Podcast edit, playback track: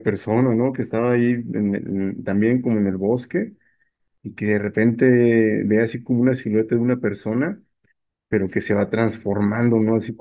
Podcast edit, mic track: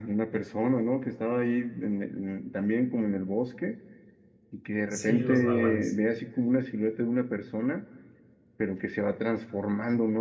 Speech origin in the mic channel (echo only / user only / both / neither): both